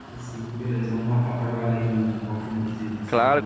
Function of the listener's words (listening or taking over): taking over